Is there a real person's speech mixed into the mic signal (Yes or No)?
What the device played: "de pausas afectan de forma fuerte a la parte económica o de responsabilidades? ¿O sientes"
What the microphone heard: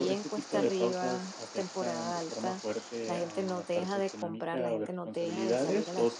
Yes